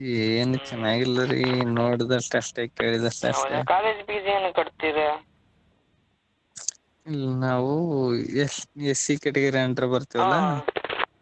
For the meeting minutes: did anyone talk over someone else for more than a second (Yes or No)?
No